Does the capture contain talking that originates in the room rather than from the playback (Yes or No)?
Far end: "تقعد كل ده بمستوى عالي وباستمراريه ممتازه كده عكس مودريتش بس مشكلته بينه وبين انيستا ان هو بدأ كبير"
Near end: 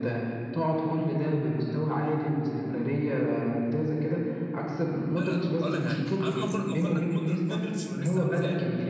Yes